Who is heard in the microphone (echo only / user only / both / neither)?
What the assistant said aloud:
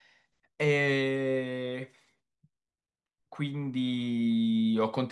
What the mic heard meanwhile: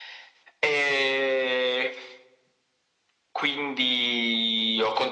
echo only